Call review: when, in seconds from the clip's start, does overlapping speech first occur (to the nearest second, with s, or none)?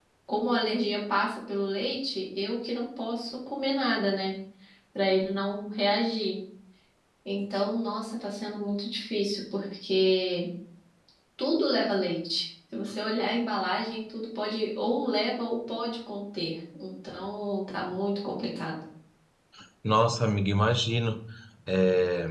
none